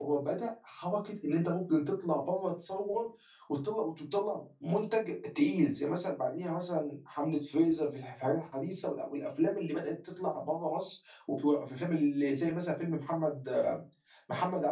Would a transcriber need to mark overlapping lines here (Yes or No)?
No